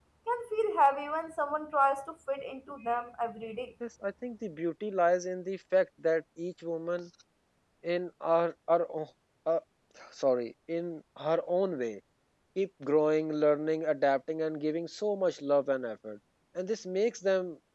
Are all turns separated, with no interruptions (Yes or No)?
Yes